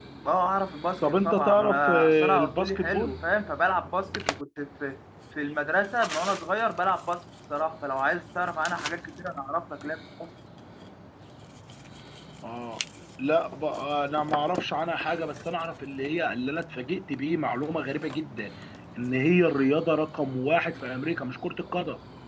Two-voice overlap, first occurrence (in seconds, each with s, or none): 1.0 s